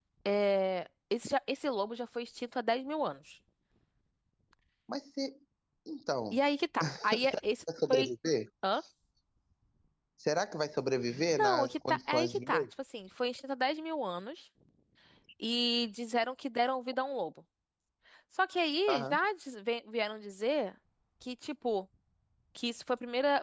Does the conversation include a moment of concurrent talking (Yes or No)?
Yes